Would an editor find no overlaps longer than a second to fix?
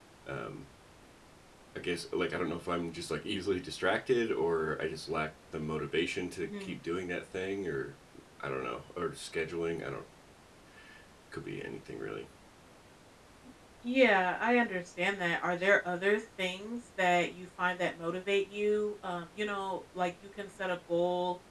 Yes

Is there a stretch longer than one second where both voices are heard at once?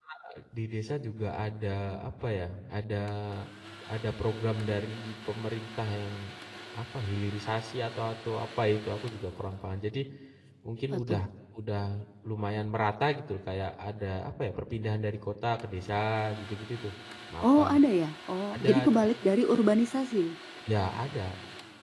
No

